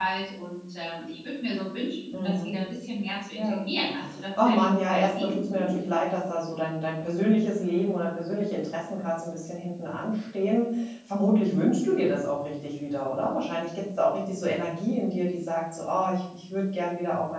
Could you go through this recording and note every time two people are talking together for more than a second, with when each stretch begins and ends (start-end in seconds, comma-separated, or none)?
4.4-5.8